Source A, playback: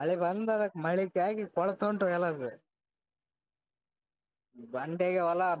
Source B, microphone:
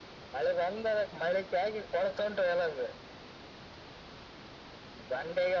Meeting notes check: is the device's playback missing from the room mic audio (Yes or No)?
No